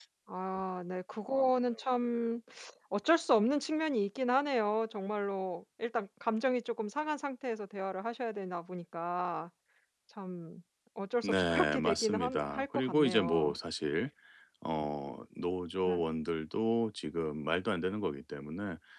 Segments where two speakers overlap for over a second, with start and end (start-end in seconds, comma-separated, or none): 11.2-13.5